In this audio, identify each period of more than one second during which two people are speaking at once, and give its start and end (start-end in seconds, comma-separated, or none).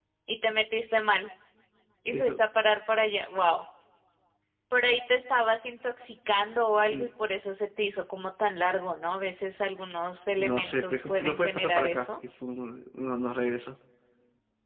10.4-12.2